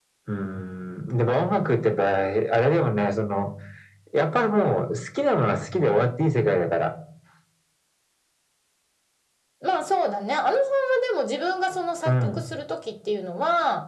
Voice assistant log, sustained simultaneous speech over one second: none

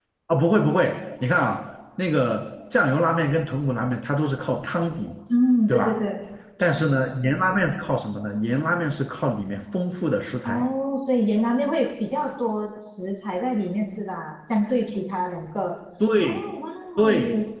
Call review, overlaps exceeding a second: none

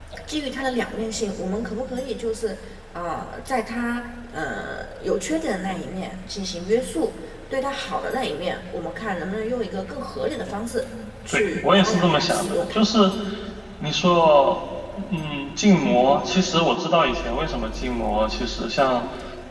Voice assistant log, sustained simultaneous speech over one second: present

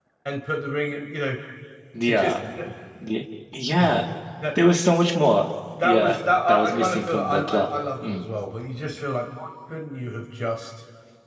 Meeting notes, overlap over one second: present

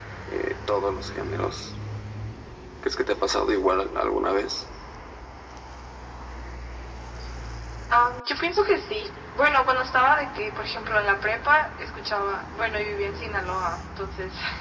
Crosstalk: none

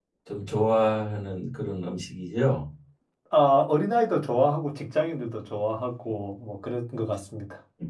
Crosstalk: none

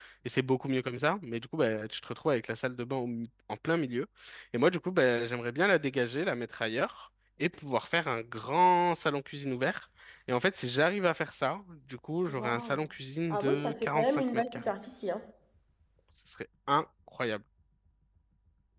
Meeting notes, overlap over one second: present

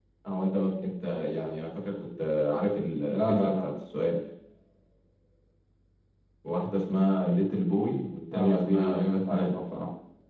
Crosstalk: present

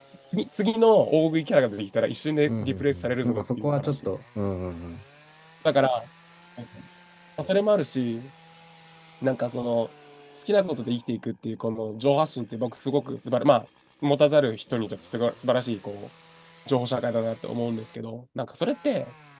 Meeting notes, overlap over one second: present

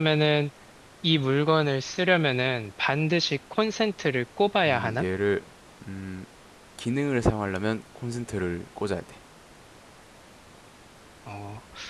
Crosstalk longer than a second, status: none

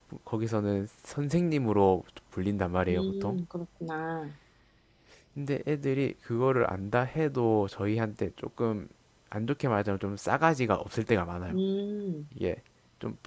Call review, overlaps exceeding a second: none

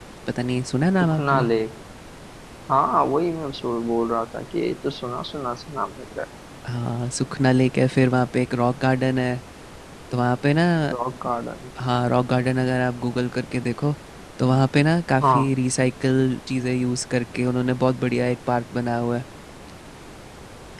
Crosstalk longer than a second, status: none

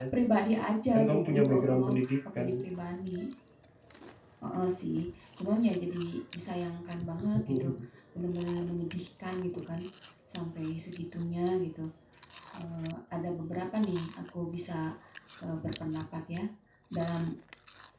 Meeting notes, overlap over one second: present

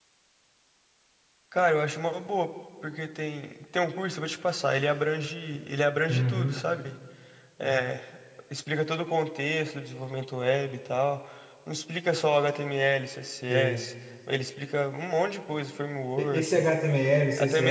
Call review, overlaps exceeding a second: none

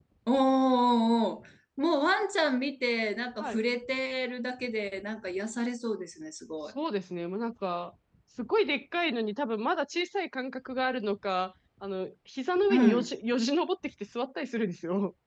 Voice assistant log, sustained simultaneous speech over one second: none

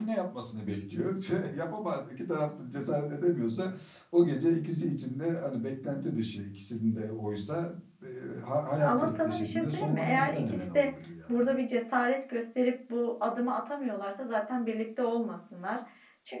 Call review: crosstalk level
present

